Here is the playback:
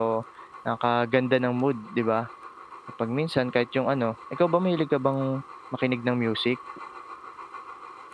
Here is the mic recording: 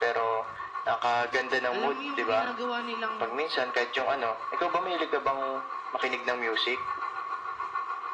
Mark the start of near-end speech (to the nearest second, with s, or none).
2 s